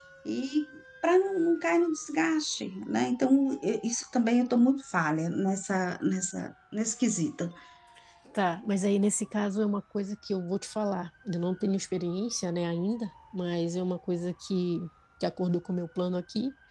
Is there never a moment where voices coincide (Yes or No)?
Yes